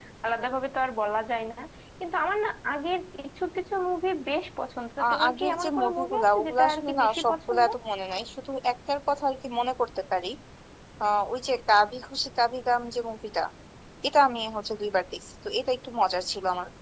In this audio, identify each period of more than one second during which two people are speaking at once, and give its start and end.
5.0-7.6

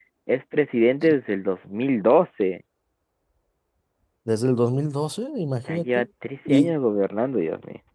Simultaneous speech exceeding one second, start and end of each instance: none

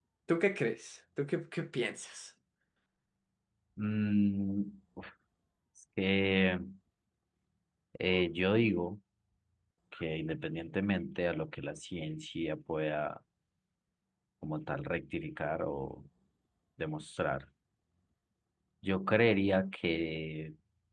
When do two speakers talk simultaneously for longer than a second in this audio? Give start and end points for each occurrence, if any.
none

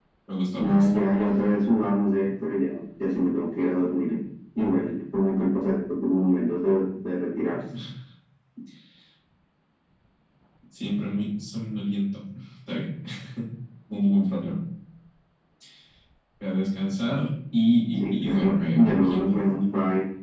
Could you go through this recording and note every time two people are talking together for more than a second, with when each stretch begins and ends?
18.0-19.7

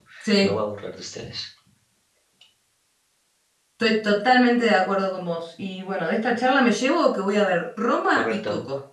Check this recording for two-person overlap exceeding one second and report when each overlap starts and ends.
none

